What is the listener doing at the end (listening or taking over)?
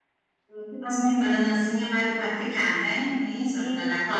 taking over